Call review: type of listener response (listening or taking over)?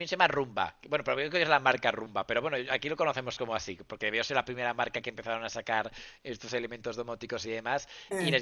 listening